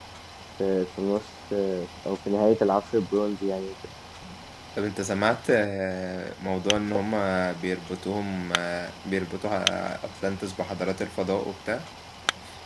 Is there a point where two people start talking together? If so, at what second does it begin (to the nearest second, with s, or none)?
none